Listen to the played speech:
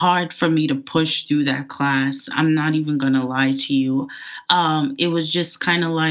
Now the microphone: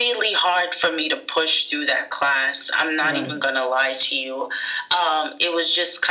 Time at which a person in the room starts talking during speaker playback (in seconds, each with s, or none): 3.0 s